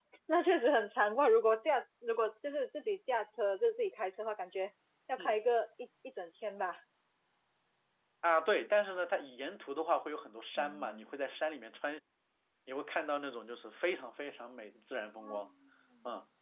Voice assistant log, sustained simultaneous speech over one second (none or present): none